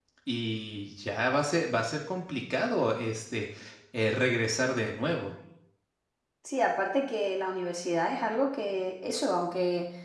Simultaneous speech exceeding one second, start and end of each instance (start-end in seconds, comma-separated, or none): none